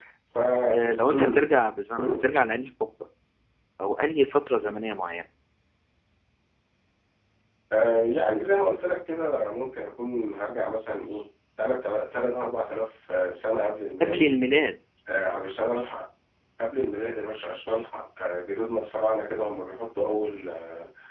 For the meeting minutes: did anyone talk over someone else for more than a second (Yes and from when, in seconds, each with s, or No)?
No